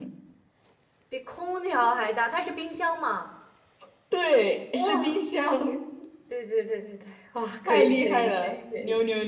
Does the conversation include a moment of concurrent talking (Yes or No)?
Yes